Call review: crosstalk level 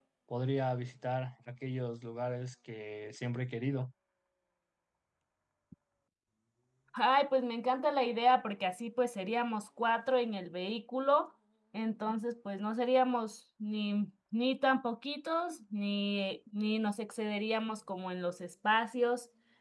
none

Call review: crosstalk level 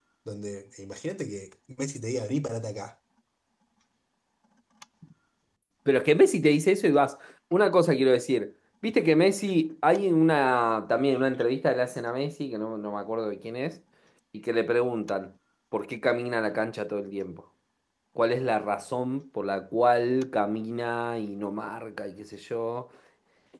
none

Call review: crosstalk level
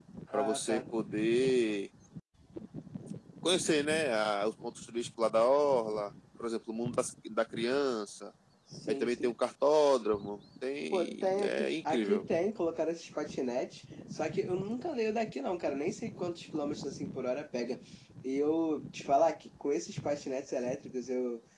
present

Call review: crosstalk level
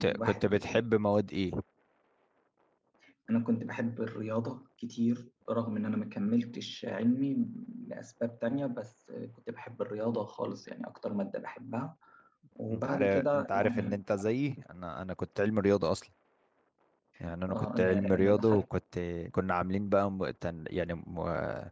present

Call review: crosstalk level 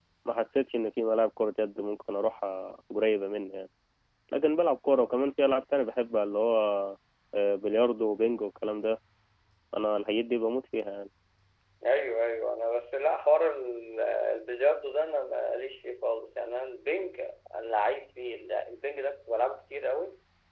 none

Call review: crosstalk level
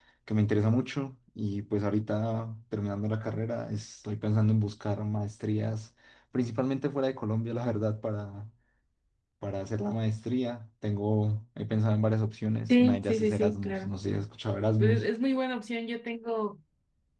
present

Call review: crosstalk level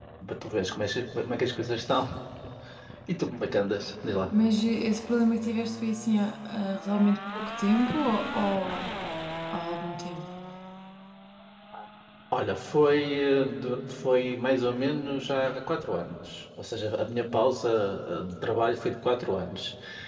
none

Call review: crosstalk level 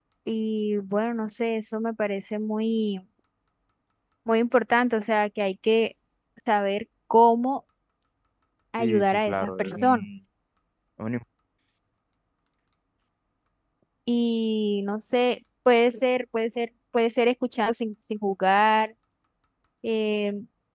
present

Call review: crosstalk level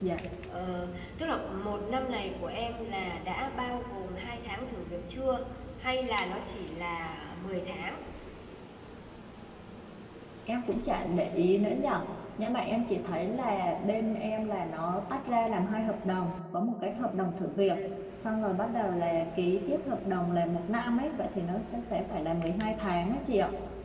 none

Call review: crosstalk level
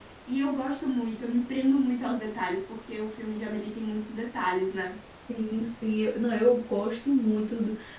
none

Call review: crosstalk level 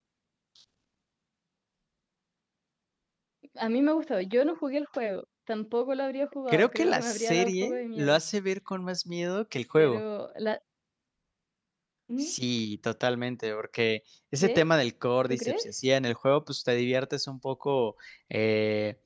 present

